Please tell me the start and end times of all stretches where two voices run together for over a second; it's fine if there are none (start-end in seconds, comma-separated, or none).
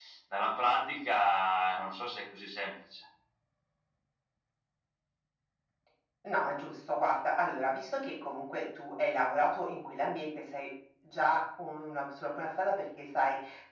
none